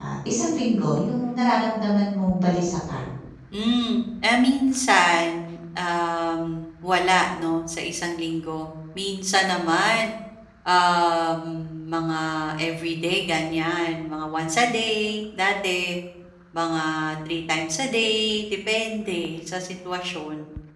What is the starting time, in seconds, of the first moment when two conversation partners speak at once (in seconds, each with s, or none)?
none